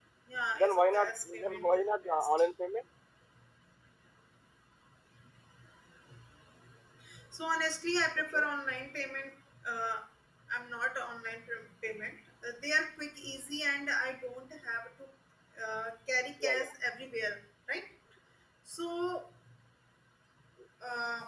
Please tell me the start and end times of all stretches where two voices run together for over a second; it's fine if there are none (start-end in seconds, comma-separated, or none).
0.5-2.5